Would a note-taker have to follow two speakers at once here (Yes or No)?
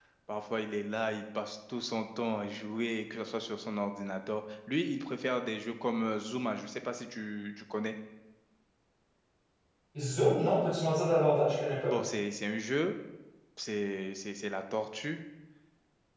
No